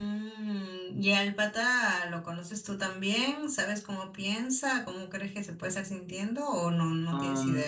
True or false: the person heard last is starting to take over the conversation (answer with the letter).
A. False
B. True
B